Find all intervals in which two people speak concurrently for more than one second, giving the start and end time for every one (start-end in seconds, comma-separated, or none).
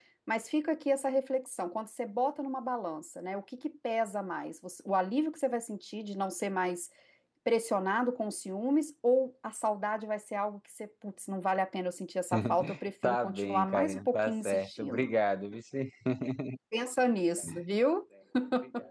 13.0-15.1